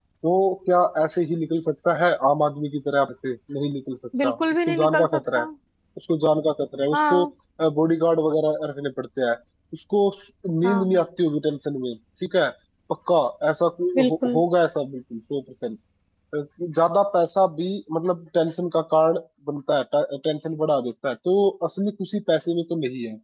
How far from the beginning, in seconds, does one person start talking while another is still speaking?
4.2 s

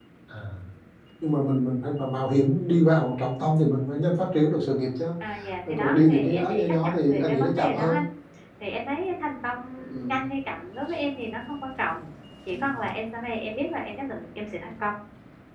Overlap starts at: 5.6 s

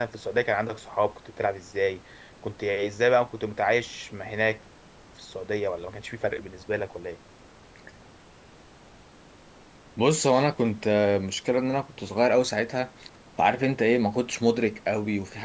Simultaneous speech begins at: none

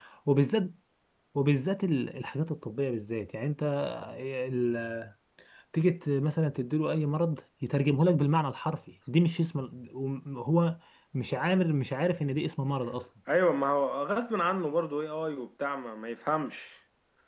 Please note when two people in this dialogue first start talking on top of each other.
none

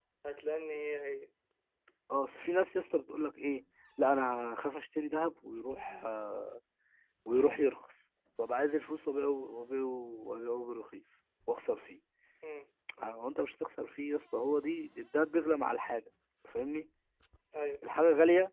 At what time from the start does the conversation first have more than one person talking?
none

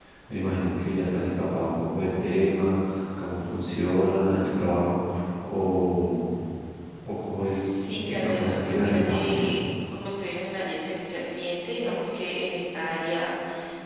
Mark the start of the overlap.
7.7 s

